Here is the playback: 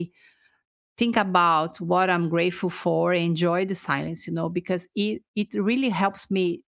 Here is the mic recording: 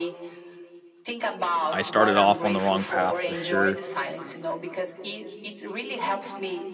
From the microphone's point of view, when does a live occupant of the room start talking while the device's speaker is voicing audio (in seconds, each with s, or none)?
1.7 s